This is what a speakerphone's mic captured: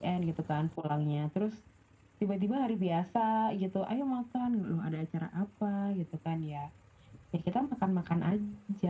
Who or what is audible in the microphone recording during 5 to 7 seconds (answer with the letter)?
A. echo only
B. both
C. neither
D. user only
A